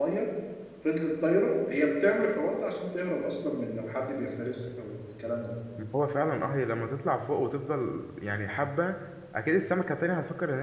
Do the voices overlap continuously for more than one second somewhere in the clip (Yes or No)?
No